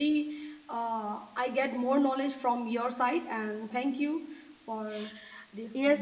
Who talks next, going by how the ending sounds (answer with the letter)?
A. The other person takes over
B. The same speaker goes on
A